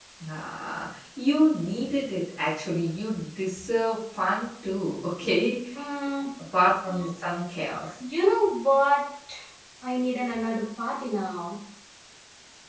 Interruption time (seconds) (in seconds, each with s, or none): none